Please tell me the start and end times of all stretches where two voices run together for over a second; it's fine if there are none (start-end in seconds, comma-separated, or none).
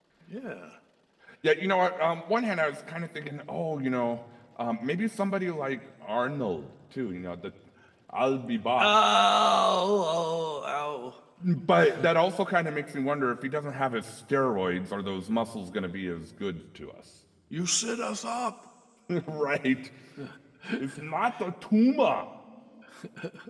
none